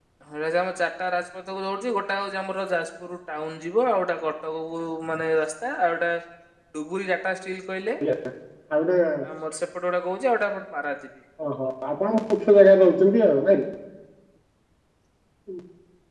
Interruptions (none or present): none